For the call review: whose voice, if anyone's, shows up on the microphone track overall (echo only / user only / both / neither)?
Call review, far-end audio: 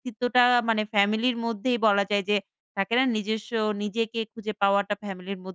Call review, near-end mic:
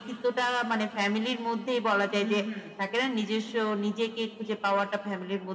both